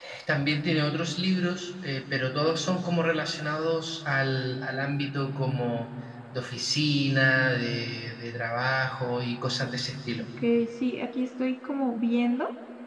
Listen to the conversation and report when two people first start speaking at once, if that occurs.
none

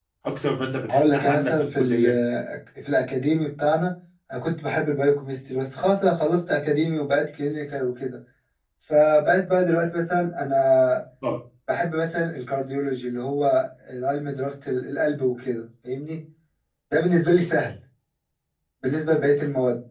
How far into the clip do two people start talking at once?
0.9 s

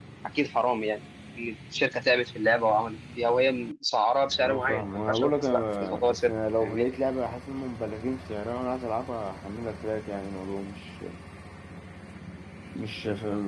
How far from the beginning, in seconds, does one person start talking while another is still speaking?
4.4 s

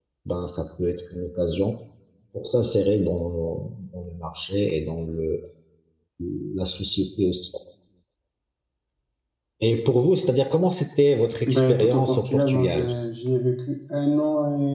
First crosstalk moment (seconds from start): 11.4 s

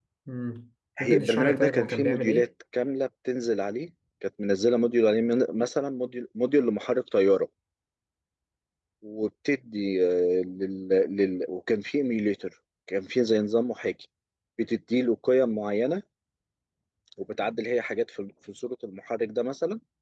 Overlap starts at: 1.0 s

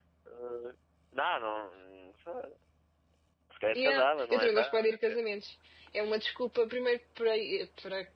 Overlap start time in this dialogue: 3.8 s

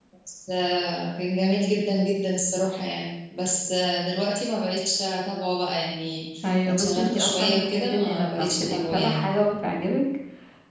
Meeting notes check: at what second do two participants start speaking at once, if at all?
6.4 s

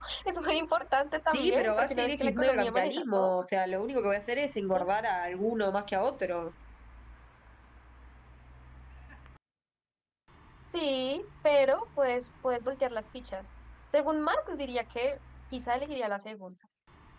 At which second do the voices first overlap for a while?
1.3 s

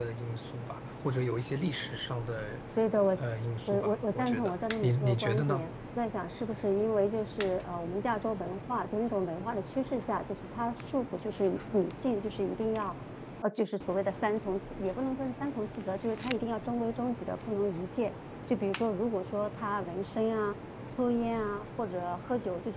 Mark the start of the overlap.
3.7 s

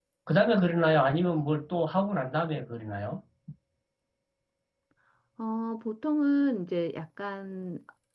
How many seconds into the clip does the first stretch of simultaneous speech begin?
none

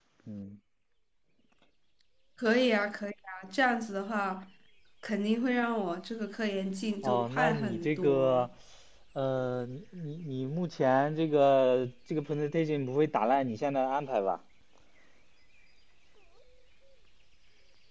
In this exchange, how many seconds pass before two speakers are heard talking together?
7.0 s

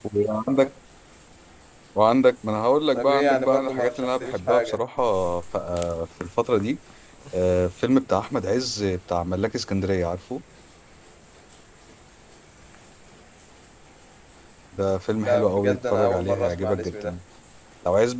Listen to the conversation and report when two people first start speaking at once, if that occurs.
2.9 s

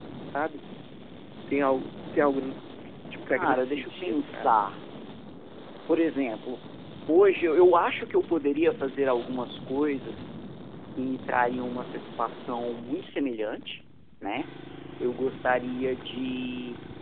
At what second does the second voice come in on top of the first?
3.3 s

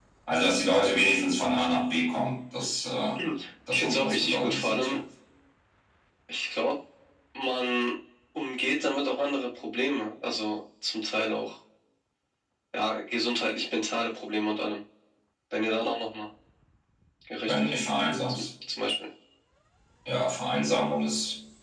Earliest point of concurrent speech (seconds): 3.7 s

